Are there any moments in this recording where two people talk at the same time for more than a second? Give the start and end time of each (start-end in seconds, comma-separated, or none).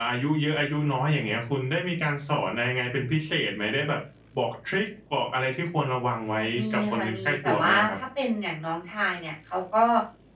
6.4-8.0